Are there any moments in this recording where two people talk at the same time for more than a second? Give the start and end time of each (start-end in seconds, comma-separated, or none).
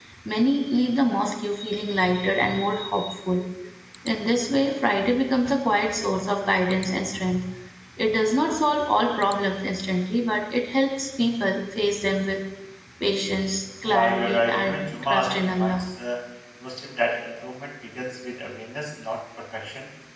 13.8-15.8